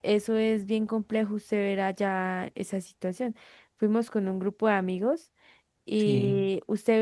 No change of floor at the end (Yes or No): Yes